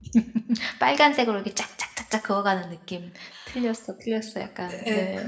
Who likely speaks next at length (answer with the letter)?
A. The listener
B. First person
A